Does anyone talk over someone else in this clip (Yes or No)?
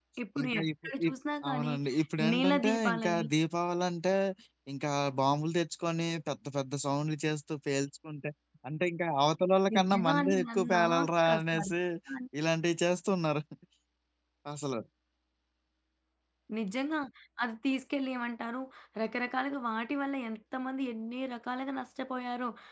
Yes